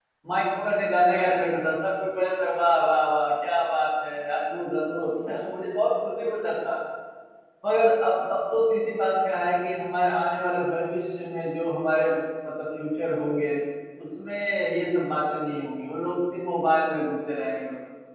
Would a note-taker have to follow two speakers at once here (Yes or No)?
No